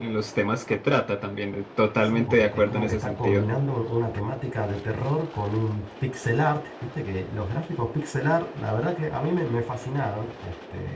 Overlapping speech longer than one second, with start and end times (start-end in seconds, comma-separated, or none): 2.1-3.4